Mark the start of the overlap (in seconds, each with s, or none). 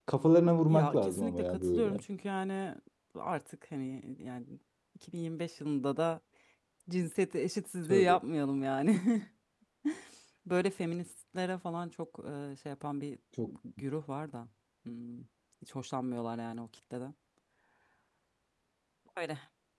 0.7 s